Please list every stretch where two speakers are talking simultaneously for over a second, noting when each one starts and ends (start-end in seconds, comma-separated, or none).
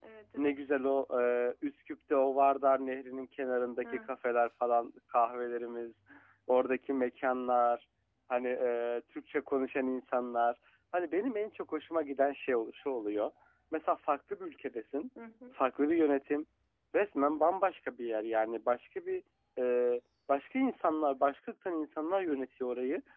none